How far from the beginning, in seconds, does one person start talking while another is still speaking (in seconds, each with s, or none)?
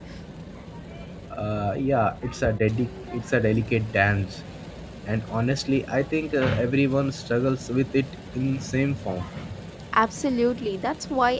none